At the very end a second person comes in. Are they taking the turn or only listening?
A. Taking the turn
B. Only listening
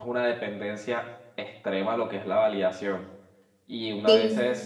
B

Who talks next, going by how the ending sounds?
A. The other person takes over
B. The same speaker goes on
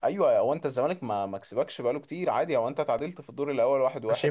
A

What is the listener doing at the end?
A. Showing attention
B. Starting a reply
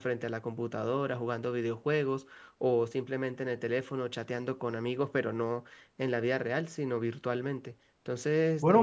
B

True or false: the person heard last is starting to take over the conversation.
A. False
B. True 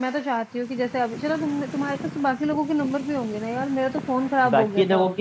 B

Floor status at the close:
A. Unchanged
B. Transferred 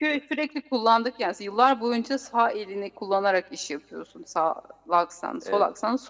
A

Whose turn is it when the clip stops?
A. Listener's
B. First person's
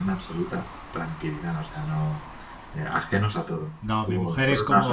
A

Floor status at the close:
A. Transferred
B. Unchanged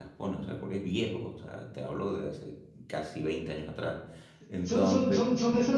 A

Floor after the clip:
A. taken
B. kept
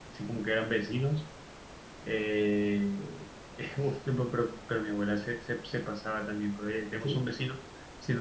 B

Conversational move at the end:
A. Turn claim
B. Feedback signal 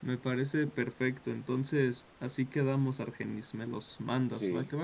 A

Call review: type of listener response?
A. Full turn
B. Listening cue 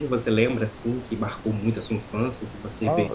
A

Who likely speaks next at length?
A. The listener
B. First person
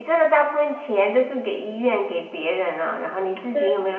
B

